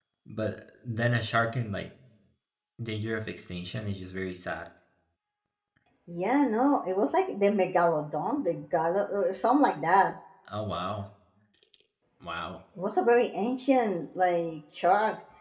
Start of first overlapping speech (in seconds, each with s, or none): none